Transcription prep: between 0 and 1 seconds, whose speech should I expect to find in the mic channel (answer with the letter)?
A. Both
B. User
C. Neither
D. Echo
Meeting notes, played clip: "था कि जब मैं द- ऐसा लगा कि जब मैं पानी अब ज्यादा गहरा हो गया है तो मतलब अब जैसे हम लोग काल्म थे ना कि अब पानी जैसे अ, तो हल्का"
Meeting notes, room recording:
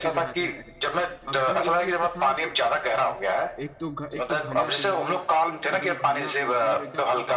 A